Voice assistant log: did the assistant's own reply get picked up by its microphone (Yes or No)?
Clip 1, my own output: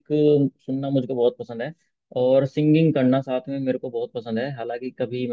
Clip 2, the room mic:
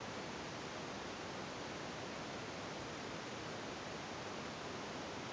No